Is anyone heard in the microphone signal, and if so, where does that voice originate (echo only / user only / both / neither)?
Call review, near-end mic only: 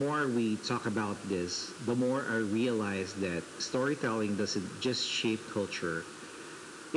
echo only